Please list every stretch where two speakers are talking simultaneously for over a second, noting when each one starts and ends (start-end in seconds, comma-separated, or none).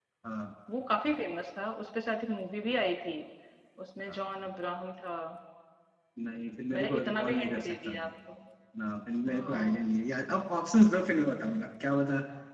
6.7-8.1